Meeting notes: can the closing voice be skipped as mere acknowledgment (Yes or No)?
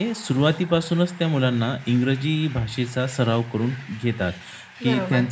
Yes